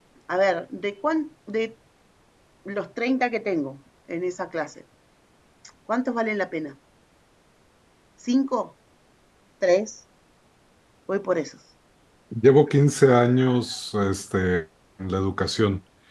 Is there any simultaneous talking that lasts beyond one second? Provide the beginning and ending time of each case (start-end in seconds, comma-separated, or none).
none